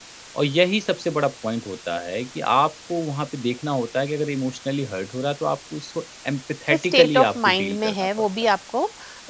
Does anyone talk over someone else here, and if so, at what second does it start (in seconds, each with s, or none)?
6.7 s